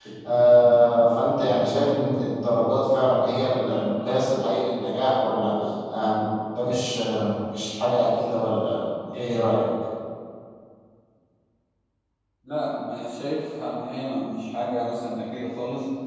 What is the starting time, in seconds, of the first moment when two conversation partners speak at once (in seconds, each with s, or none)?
none